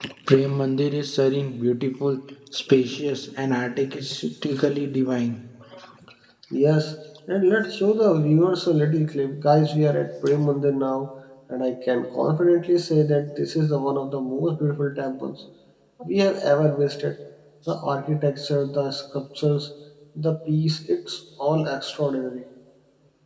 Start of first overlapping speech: none

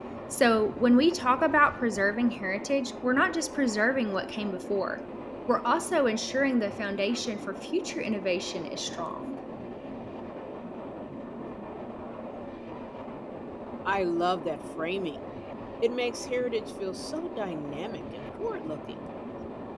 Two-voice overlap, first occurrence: none

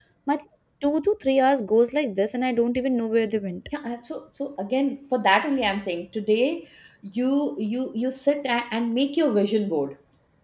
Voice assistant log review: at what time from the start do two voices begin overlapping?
none

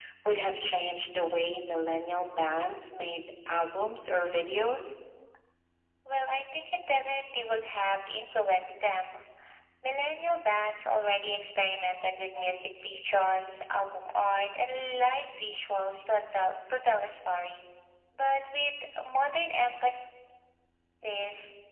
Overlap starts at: none

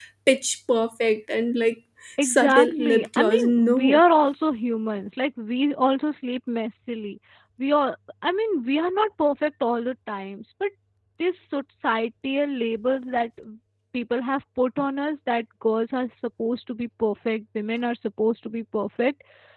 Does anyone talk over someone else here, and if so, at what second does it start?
2.2 s

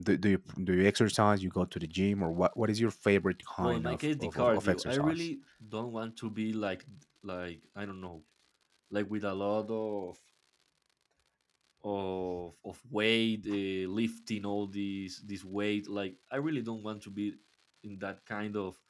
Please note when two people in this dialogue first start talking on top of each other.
3.6 s

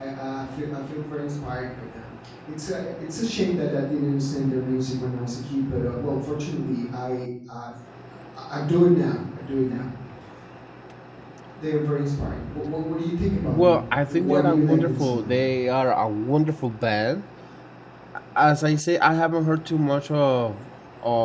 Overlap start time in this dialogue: 13.4 s

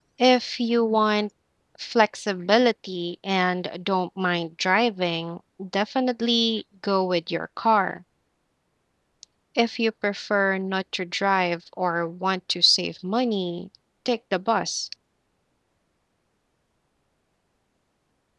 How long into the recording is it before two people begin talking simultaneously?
none

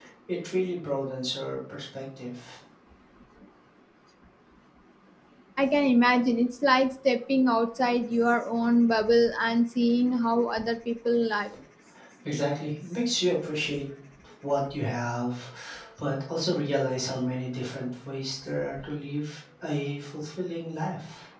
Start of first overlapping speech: none

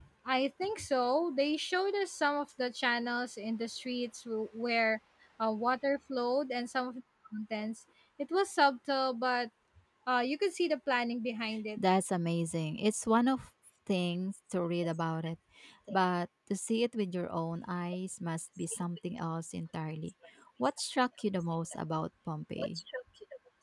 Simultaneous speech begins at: none

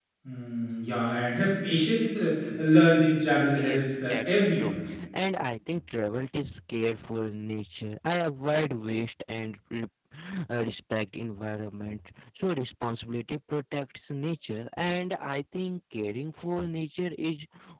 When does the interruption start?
3.5 s

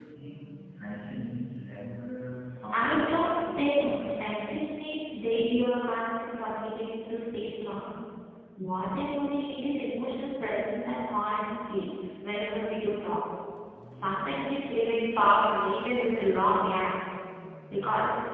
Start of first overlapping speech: 2.7 s

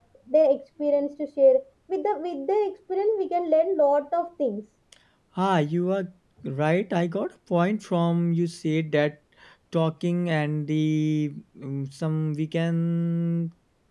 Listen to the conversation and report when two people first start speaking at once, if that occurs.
none

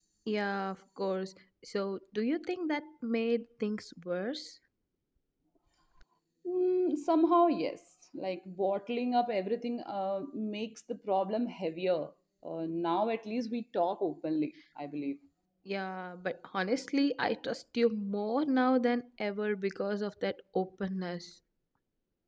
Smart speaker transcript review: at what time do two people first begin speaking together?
none

